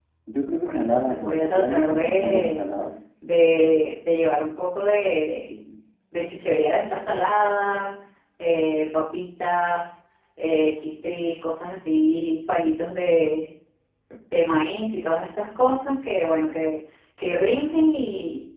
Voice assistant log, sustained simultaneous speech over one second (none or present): present